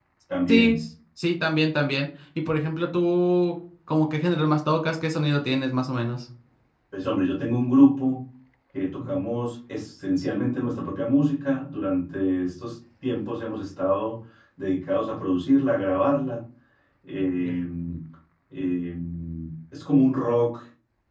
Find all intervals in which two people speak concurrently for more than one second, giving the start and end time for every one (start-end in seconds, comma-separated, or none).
none